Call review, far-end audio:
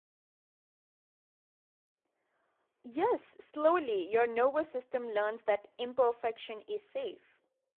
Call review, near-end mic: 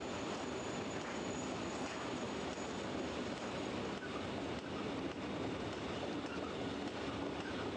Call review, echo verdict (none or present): none